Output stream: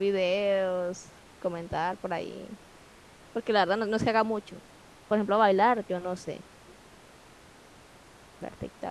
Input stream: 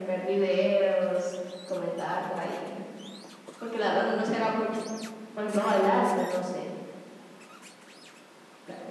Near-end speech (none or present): none